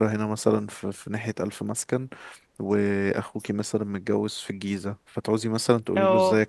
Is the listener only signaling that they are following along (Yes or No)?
Yes